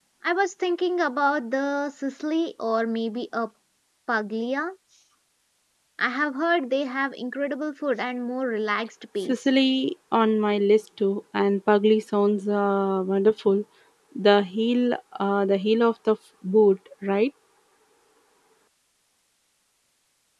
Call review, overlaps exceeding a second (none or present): none